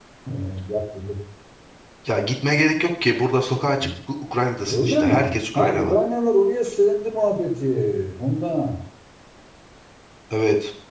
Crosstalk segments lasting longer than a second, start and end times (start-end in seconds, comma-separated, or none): 4.7-6.0